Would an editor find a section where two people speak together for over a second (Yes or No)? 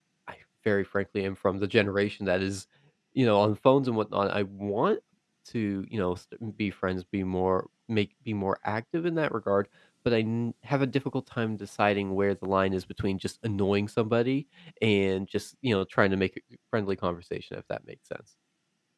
No